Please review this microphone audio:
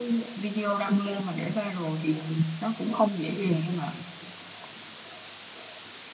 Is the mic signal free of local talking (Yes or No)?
Yes